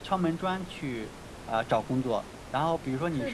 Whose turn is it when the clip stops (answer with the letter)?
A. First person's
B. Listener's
A